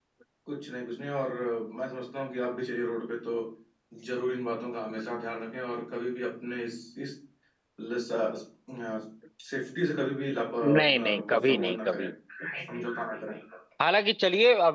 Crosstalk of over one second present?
Yes, from 10.6 s

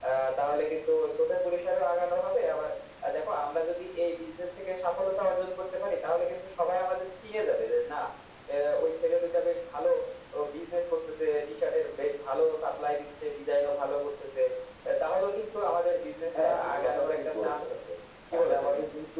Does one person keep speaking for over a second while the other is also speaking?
Yes, from 16.4 s

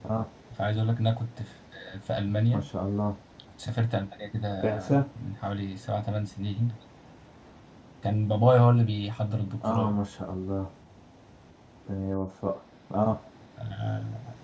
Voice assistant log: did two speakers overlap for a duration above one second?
No

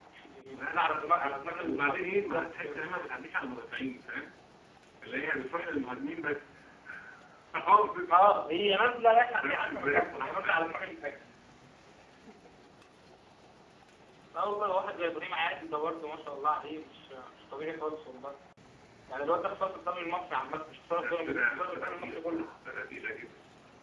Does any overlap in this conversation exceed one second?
Yes, from 0.5 s

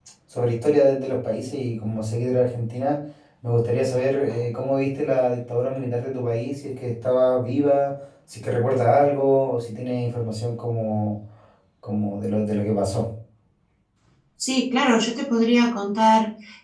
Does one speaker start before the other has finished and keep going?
No

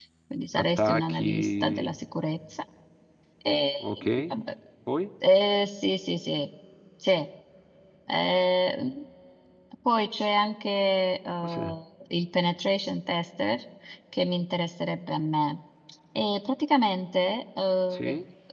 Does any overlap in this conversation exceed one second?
Yes, from 0.6 s

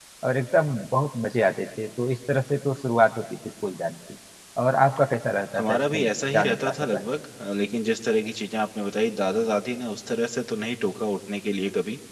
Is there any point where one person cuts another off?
Yes, from 5.5 s

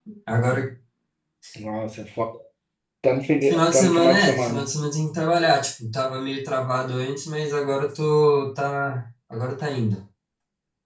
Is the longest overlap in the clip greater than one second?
Yes, from 3.4 s

